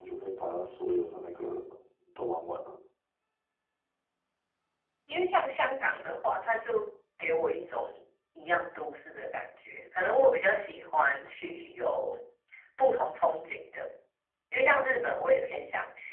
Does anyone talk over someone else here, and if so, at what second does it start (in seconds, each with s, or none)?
none